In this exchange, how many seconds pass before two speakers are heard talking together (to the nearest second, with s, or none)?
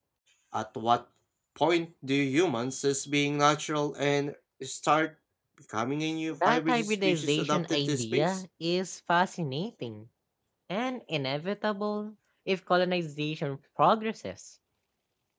6 s